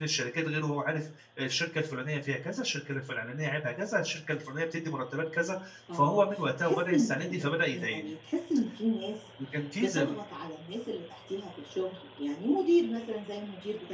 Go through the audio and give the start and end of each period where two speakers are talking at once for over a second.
5.9-8.1

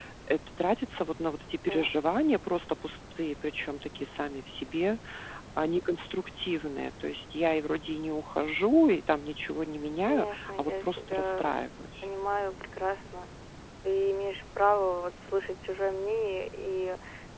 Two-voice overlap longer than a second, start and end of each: 10.1-11.5

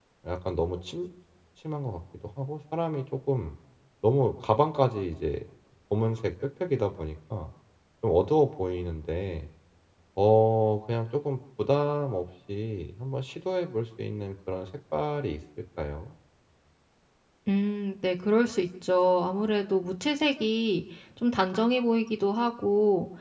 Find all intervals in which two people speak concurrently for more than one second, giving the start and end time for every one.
none

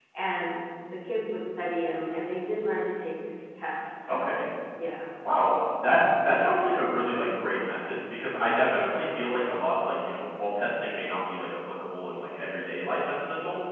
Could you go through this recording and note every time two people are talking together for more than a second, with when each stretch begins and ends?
none

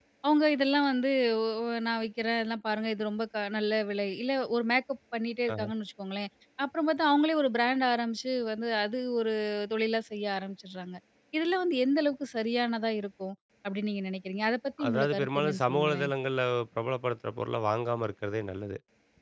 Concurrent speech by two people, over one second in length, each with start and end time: 14.9-16.1

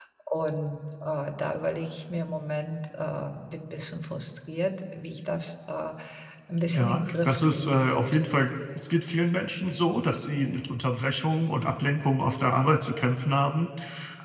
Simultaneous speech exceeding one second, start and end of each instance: 6.7-8.3

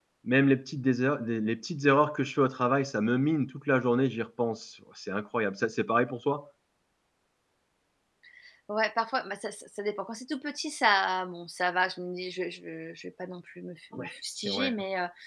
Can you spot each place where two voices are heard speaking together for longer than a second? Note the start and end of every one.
none

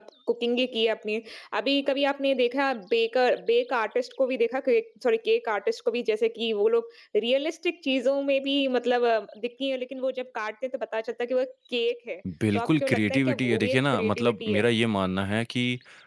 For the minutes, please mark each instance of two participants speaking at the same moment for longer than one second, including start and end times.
12.6-14.6

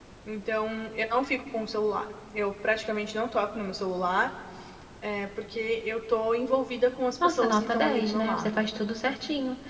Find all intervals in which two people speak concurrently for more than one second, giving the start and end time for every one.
7.2-8.6

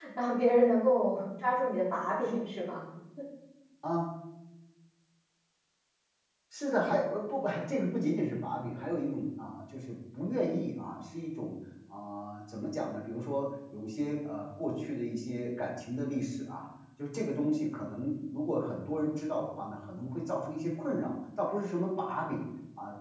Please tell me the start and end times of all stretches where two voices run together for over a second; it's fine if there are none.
none

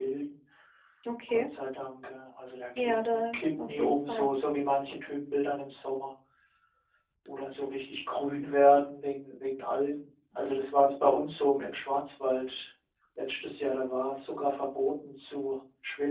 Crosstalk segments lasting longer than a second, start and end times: 2.8-4.3

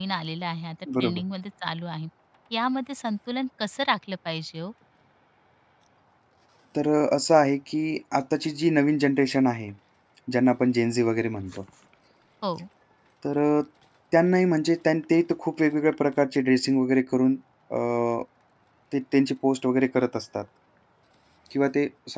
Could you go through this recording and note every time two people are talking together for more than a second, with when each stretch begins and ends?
none

